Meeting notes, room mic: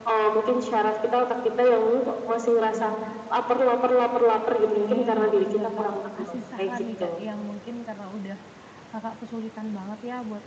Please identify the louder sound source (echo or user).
echo